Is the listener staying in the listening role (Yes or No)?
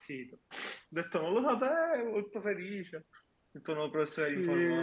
No